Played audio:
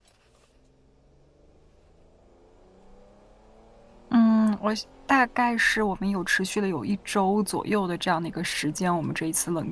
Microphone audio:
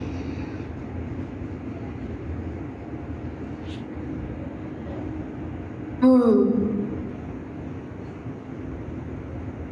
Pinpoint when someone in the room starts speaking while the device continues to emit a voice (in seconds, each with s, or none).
6.0 s